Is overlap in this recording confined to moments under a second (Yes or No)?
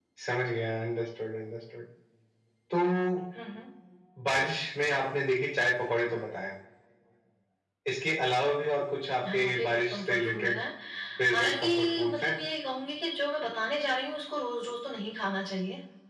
No